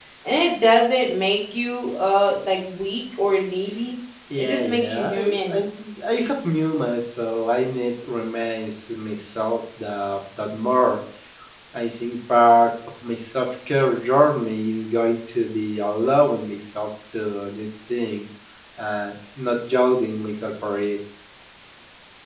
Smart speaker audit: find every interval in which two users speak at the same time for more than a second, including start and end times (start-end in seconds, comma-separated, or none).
4.4-5.6